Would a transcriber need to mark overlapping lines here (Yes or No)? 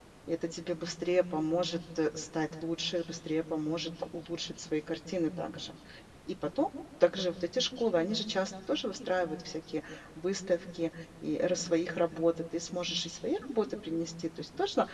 No